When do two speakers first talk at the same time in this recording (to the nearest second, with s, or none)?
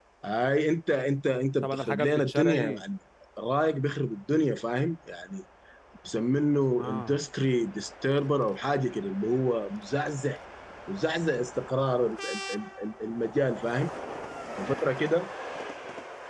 2 s